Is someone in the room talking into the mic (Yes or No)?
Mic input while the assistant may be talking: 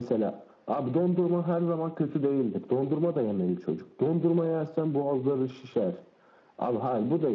No